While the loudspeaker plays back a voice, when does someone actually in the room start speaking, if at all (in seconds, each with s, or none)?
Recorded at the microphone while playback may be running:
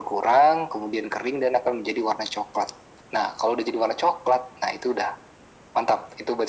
none